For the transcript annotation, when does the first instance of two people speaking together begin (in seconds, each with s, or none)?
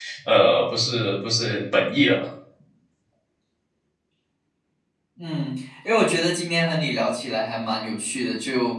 none